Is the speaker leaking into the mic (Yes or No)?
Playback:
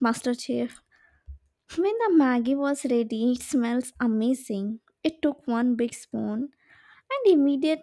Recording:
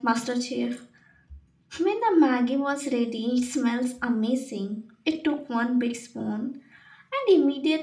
Yes